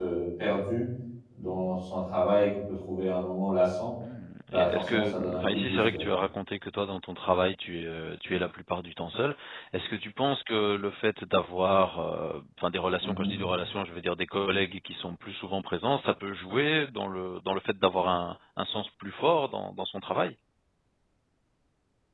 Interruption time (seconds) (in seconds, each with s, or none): 4.5 s